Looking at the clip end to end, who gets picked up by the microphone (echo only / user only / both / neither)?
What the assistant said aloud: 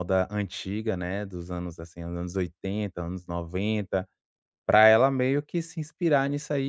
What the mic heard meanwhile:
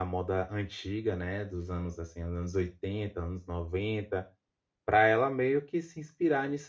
echo only